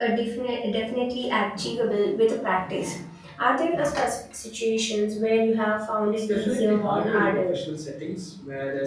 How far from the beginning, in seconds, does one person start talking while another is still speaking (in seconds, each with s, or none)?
6.2 s